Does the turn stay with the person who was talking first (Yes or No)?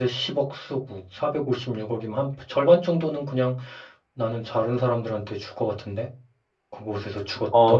No